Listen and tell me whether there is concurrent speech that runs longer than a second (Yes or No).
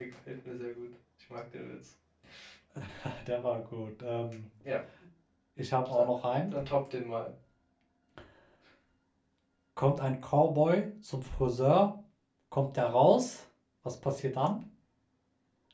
No